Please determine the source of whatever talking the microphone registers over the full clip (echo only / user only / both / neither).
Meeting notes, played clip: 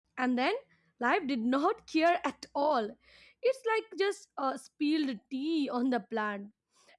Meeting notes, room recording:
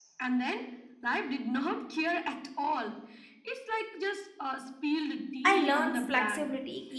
both